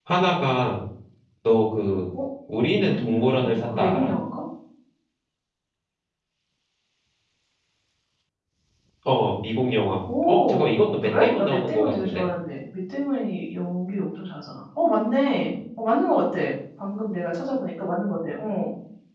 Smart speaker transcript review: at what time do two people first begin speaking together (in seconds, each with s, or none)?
2.9 s